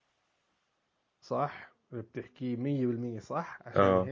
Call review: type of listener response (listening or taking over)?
listening